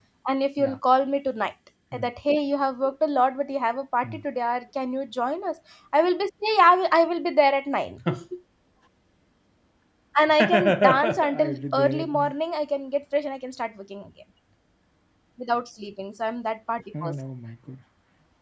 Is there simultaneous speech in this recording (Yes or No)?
Yes